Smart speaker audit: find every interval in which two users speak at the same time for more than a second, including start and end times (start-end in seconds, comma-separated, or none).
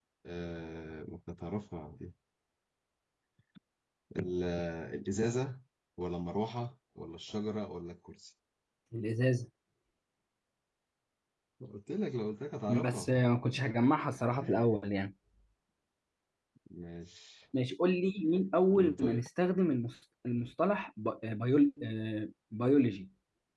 none